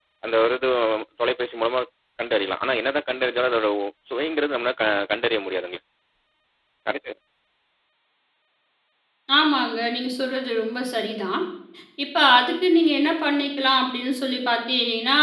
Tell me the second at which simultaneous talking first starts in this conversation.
none

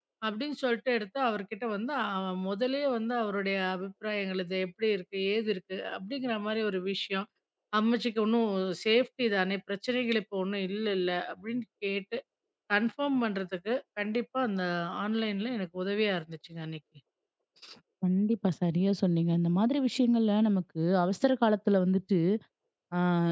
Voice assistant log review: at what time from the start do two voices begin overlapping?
none

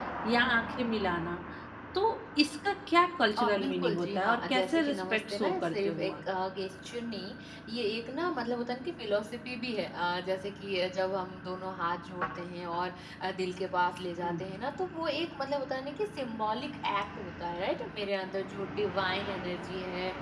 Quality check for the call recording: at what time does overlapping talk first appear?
3 s

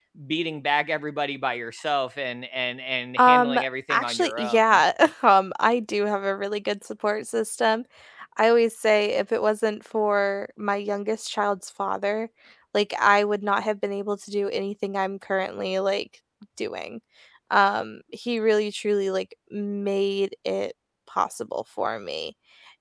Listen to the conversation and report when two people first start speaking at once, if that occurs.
3 s

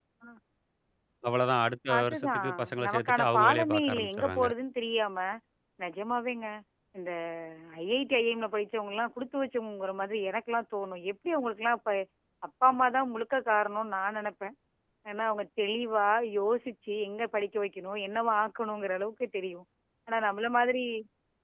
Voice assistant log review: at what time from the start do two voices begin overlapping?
2 s

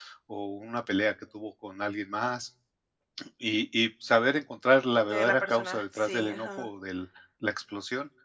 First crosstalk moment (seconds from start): 5 s

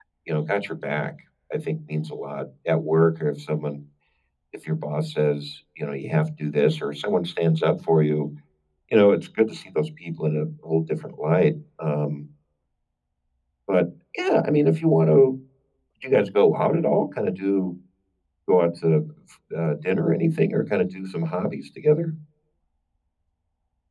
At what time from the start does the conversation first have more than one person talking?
none

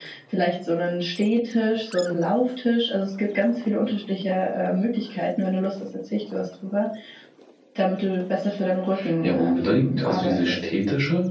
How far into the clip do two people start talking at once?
9 s

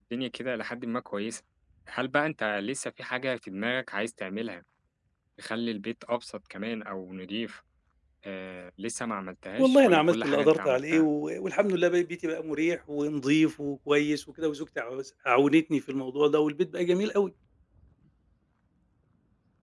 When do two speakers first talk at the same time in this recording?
10 s

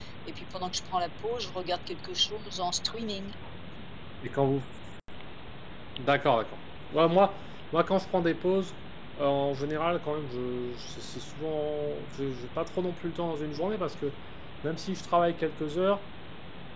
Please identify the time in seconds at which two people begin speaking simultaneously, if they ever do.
none

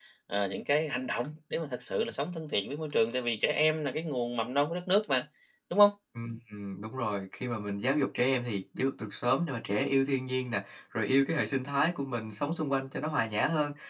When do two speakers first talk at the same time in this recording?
none

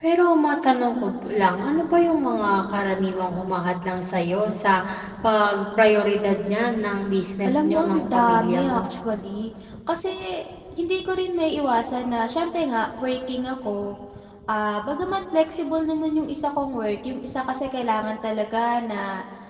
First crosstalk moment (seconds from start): 7 s

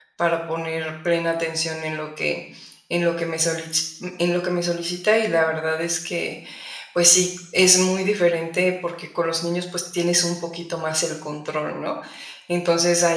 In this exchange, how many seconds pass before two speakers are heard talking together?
none

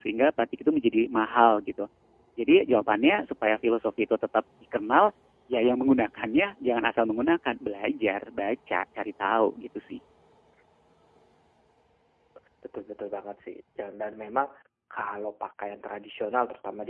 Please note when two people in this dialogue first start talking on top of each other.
none

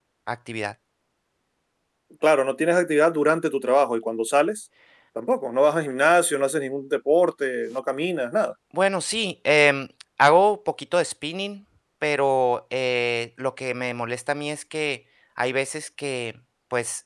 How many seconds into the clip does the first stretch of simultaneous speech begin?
none

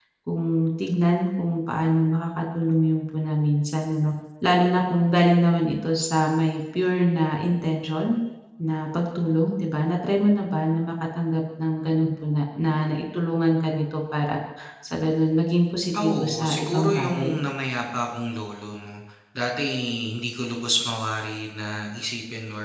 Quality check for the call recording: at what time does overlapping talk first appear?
16 s

